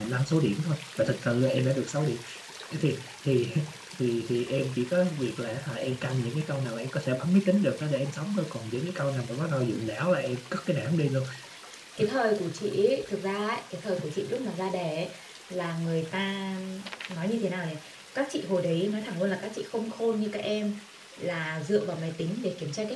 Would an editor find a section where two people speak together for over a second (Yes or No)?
No